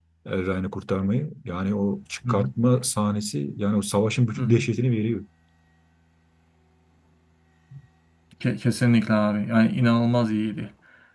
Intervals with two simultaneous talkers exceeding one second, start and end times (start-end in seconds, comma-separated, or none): none